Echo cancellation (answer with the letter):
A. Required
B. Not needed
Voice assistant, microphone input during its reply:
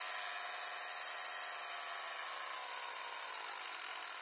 B